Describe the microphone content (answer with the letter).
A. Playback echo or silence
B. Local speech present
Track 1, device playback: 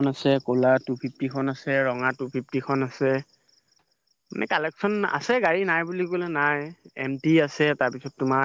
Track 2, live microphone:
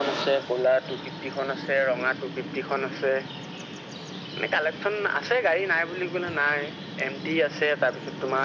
A